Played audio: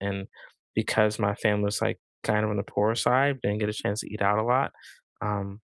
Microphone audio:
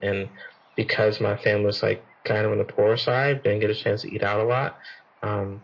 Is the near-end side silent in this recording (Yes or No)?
Yes